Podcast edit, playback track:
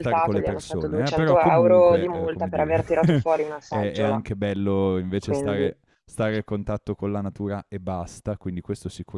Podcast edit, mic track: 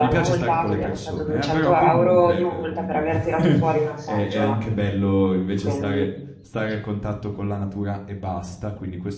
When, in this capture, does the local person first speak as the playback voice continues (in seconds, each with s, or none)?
none